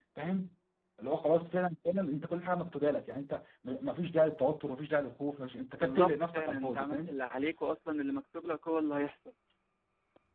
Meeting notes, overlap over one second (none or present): present